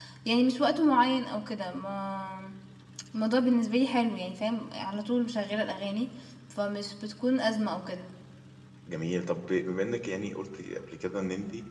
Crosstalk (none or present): none